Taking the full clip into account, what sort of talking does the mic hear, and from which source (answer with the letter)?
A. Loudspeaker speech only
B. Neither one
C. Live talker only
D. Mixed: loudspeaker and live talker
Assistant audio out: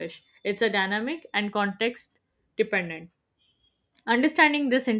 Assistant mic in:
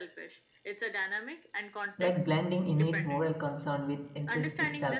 D